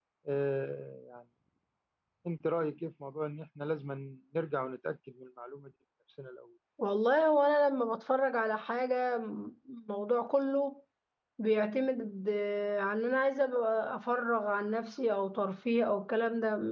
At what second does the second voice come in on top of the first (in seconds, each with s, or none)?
none